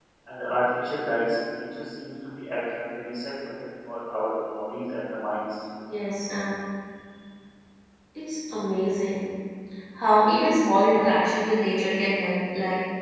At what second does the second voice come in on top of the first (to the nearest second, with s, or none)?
none